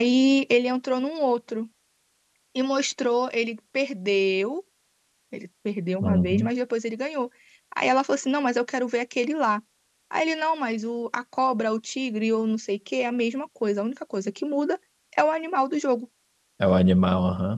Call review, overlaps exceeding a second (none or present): none